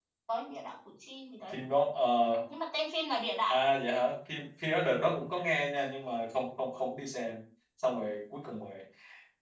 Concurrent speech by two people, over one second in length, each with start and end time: none

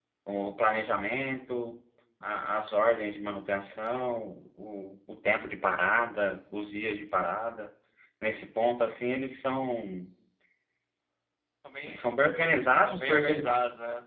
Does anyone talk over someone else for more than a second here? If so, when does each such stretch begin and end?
11.9-13.5

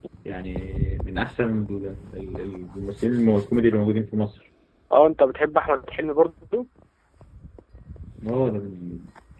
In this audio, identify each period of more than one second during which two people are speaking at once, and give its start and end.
none

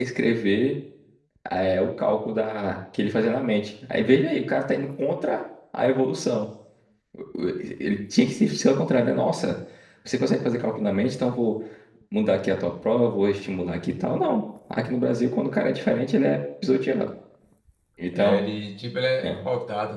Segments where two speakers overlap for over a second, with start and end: none

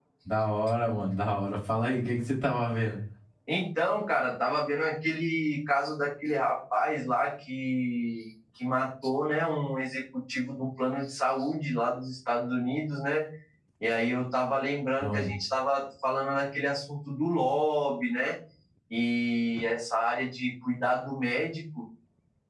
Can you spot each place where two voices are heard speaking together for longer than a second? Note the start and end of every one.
none

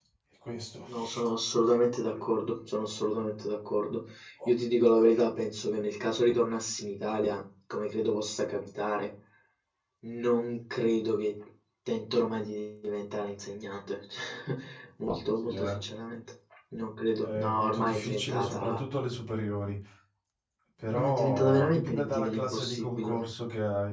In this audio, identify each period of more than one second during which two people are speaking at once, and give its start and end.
17.2-18.8, 20.9-23.1

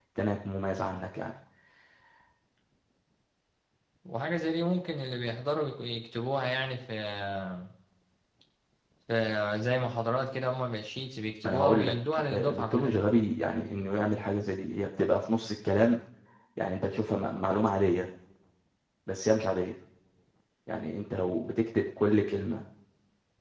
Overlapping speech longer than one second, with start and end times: 11.4-13.0

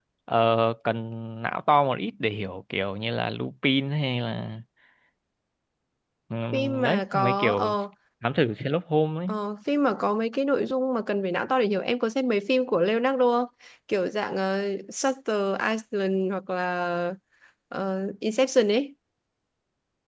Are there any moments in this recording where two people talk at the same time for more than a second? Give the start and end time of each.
6.5-7.7

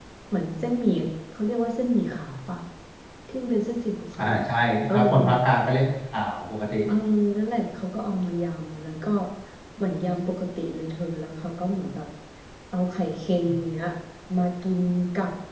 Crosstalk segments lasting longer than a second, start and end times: none

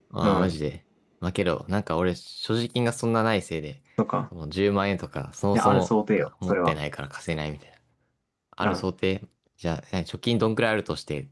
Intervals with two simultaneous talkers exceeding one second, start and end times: none

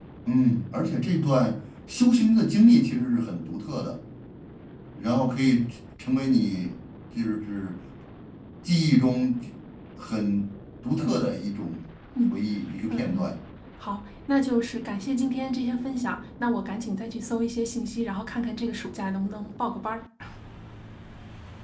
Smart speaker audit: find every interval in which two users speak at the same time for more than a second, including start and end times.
none

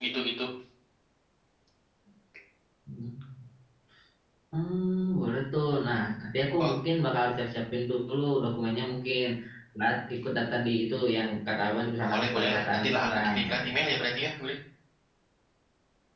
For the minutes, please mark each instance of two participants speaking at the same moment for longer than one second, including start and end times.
12.1-13.7

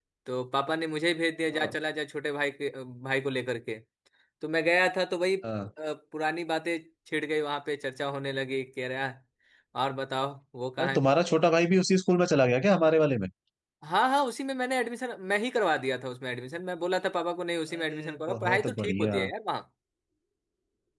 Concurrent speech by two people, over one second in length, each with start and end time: 17.8-19.2

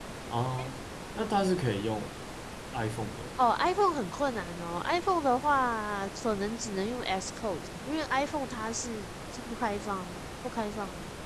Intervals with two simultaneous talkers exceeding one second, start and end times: none

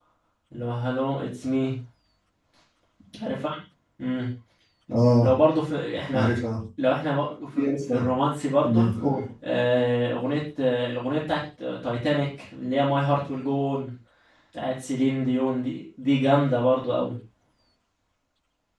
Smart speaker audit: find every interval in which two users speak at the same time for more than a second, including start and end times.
none

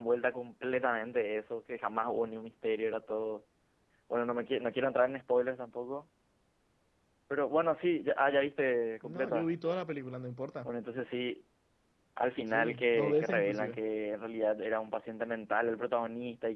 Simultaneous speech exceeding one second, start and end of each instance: 12.5-13.8

